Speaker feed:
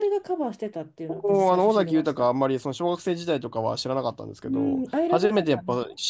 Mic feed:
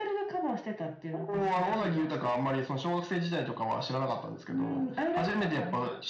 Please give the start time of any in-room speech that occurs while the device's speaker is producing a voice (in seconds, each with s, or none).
none